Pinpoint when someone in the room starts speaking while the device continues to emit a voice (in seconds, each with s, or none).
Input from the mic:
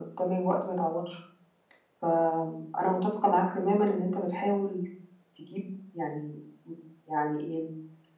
none